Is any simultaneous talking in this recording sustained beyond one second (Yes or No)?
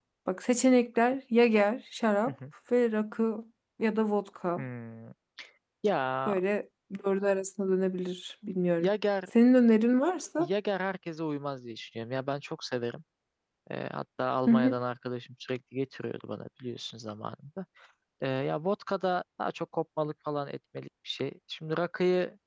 No